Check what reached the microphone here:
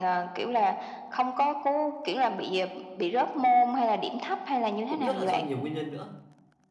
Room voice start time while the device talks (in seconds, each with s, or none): 4.9 s